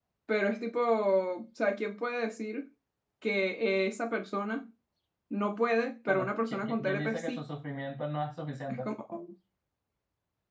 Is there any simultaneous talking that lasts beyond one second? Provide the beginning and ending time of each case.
6.1-7.4

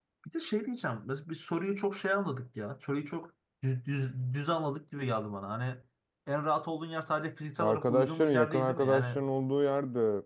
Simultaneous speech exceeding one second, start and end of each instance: 7.6-9.2

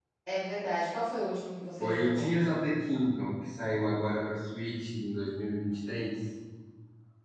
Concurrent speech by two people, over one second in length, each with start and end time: none

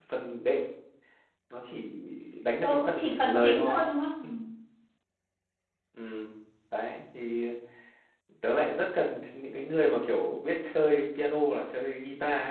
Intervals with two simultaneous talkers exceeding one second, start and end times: 2.6-3.8

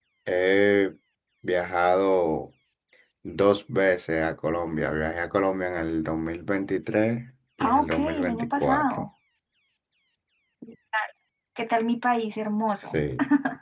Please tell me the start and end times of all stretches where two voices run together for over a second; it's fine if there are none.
7.6-9.1

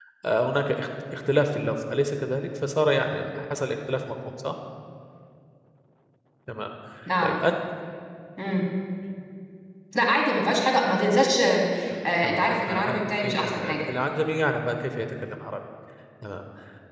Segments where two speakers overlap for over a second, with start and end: 12.2-13.8

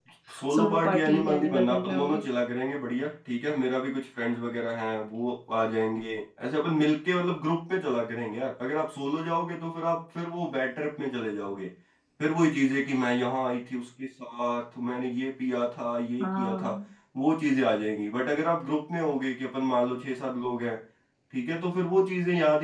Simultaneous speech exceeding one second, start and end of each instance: 0.5-2.2

